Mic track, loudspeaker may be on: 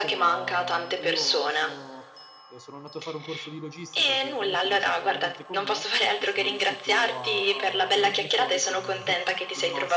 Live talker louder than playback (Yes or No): No